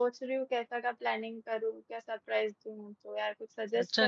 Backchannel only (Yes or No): No